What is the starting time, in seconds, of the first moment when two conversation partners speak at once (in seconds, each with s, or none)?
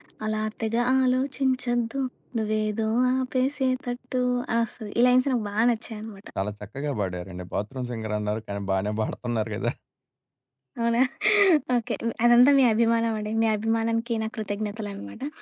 none